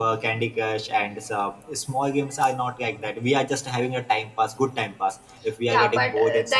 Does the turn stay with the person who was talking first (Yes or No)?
No